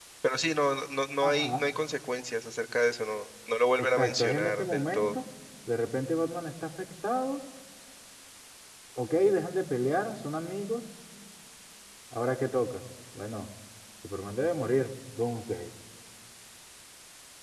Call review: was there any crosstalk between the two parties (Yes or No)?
Yes